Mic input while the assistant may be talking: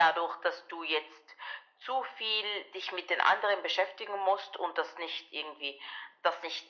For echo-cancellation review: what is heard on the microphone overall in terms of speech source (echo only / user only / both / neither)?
echo only